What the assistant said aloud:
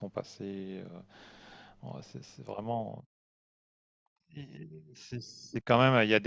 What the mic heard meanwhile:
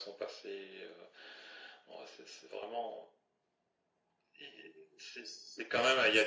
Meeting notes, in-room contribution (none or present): none